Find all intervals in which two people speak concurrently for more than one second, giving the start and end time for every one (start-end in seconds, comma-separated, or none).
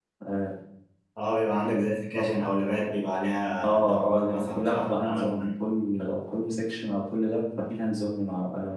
3.6-5.5